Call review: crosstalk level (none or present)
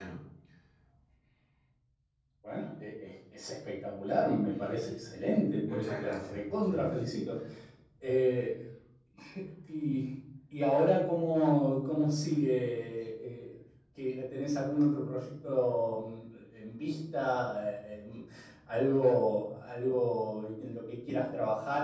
present